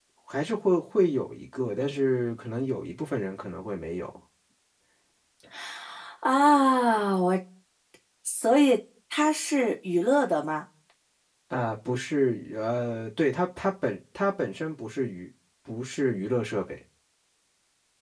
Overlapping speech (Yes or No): No